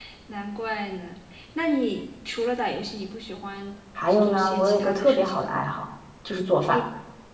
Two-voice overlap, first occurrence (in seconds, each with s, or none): 4.1 s